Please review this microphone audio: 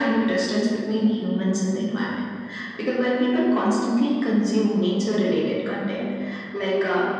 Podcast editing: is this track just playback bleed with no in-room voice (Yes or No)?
Yes